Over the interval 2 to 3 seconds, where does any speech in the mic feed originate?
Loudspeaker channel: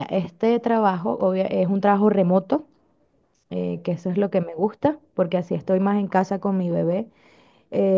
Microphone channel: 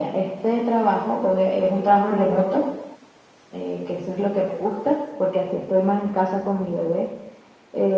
echo only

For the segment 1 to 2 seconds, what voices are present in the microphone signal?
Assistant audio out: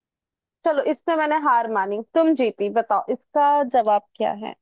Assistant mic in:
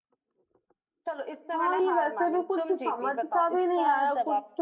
both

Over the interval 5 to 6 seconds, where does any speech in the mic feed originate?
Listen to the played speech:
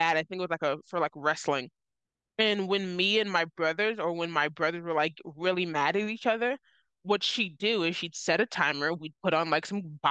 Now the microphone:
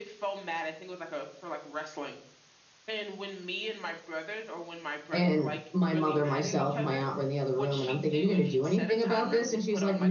both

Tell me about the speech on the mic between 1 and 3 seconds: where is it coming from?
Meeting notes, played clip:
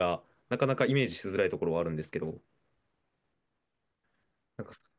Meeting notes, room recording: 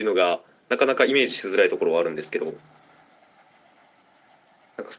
echo only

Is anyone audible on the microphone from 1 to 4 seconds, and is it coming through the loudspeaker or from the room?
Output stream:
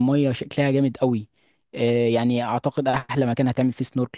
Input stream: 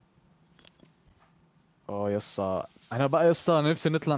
user only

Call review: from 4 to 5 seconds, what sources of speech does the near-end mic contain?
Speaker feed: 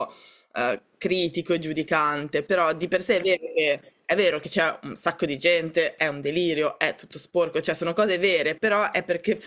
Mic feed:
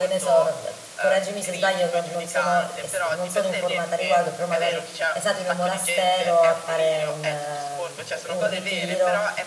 both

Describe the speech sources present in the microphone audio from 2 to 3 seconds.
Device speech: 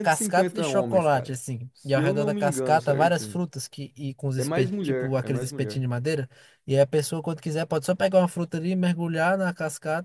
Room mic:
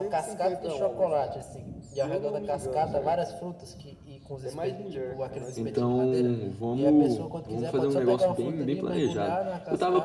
echo only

